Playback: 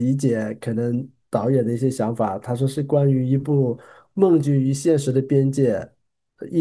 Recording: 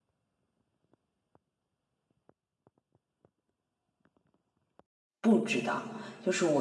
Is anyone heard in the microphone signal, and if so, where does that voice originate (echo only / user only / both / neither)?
user only